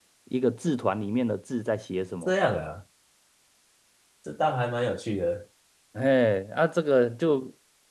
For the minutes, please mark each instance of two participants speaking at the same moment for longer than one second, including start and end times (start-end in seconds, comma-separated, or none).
none